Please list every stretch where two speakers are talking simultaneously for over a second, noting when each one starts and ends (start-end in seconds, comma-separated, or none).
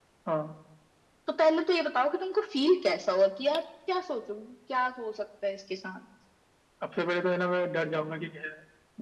none